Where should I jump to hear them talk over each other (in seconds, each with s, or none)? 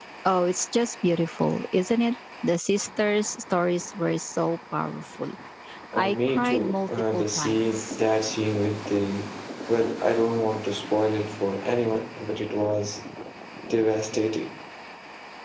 5.9 s